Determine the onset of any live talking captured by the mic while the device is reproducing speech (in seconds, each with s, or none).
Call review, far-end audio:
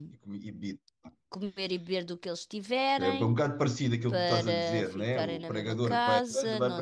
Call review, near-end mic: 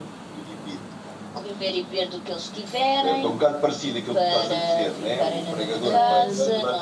5.8 s